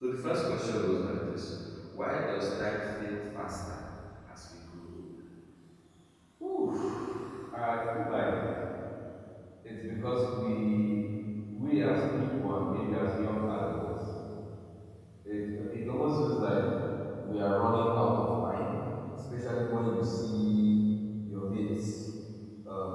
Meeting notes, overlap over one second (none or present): none